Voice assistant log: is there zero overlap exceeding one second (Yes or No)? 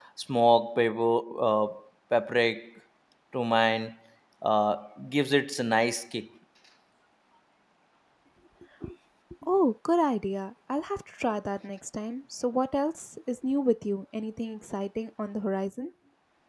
Yes